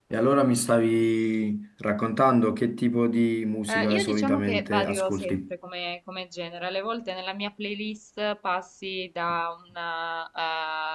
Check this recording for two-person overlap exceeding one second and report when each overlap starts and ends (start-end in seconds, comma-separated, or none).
3.7-5.4